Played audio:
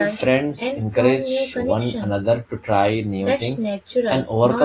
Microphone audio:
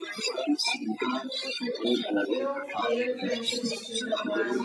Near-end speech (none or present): present